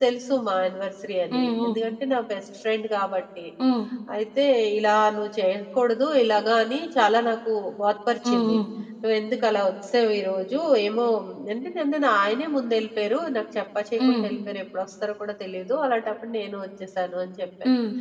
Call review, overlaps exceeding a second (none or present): none